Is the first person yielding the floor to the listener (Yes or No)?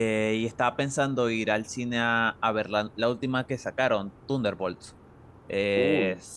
No